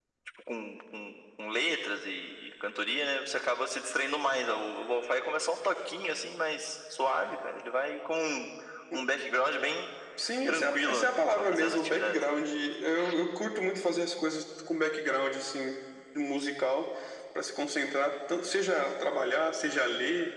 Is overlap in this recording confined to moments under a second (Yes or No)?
No